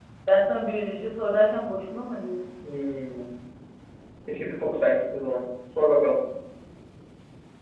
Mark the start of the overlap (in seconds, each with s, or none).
none